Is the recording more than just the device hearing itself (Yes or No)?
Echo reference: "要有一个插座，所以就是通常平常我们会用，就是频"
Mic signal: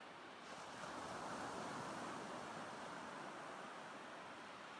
No